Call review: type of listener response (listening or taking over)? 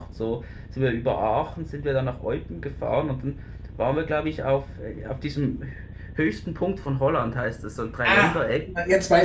taking over